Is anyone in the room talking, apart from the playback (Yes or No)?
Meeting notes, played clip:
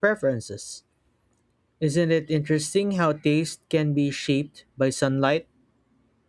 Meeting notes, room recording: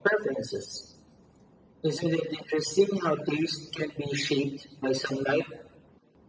No